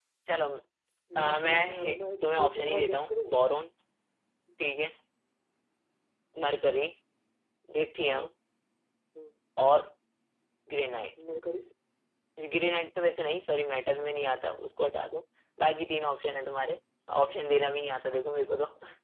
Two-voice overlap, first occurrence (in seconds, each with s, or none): 1.2 s